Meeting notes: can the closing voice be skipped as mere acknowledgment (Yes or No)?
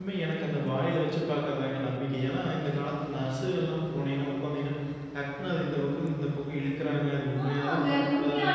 No